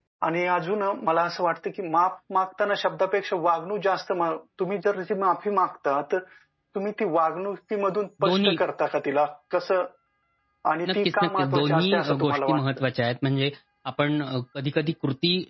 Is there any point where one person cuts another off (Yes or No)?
Yes